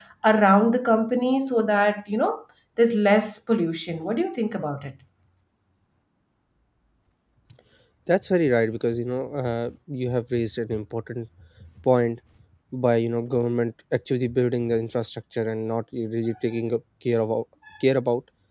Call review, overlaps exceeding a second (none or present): none